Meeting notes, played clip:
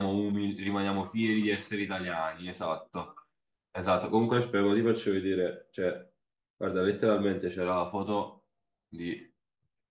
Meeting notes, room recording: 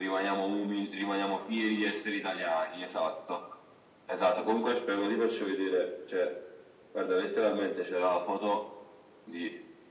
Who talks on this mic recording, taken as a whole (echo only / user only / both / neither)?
echo only